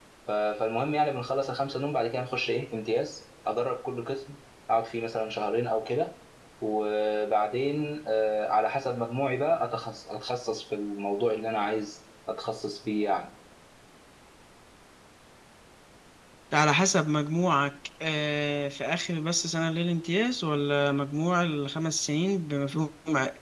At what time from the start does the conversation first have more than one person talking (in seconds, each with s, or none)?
none